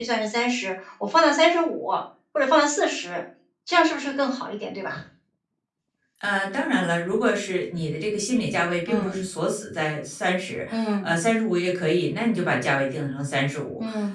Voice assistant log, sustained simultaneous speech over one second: none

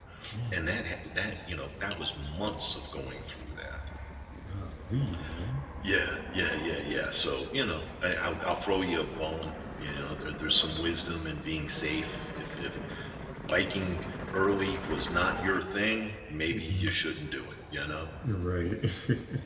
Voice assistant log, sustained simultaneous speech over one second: none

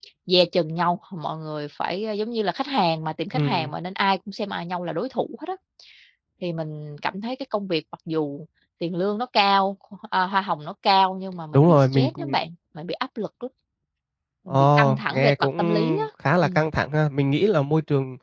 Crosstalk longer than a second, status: present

